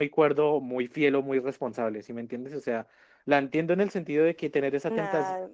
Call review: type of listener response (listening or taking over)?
listening